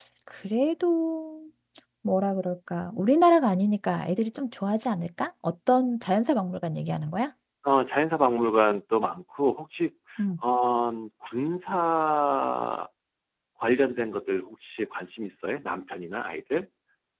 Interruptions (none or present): none